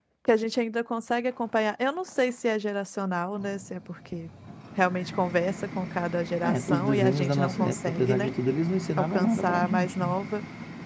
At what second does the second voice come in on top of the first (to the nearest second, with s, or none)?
6 s